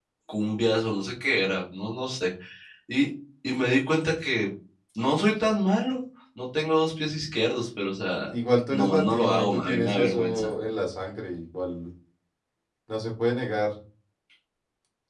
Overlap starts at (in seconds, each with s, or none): 8.7 s